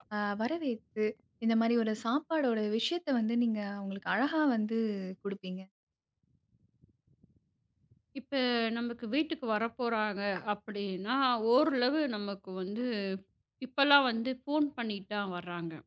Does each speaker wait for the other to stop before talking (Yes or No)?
Yes